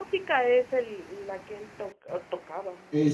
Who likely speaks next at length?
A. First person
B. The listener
B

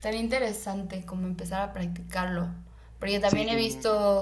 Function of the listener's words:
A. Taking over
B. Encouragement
B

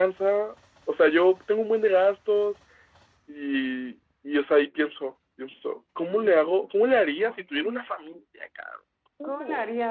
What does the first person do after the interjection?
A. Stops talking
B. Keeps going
A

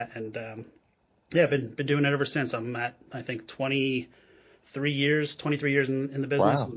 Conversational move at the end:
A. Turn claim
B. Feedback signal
A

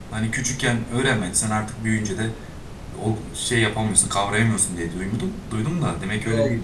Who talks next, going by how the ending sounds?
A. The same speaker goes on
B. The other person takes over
B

